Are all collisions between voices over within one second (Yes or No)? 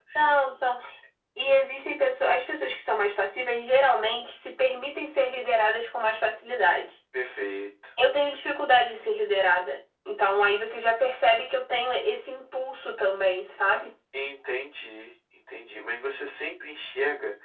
Yes